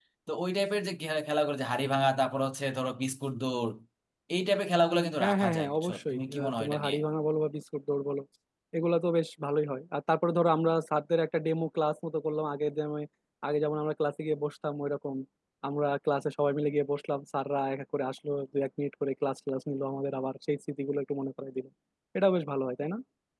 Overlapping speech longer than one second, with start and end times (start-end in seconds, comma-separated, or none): 5.2-7.0